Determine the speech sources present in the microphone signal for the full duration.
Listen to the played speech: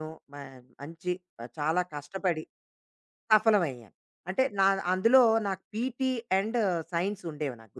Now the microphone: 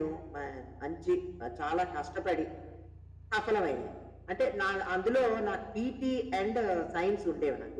echo only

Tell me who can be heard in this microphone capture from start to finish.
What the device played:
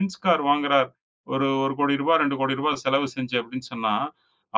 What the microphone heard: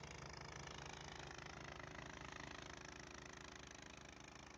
neither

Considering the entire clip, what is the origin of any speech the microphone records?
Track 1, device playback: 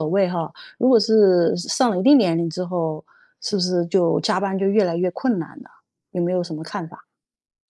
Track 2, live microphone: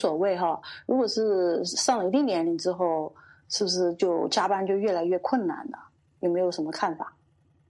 echo only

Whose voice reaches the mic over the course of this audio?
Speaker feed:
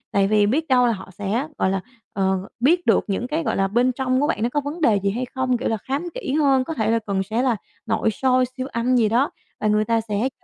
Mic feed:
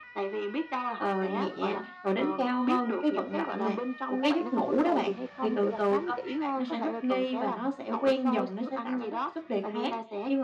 both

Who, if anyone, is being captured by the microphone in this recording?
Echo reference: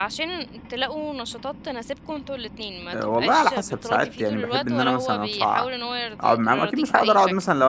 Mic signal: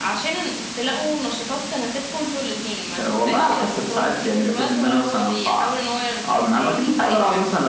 echo only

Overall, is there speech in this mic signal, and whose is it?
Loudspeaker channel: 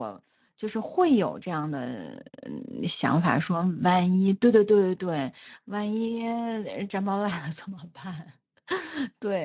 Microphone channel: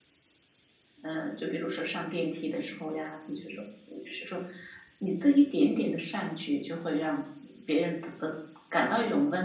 user only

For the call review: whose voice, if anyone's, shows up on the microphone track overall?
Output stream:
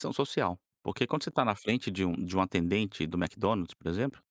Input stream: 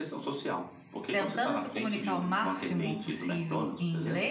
both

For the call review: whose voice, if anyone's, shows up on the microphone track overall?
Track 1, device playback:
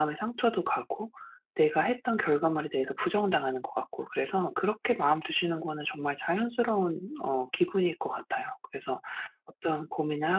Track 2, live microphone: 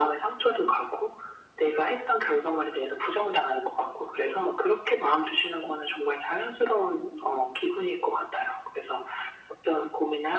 echo only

